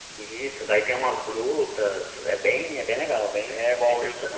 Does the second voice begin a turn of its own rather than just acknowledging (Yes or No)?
Yes